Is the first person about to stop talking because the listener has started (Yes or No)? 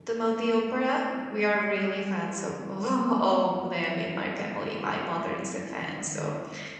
No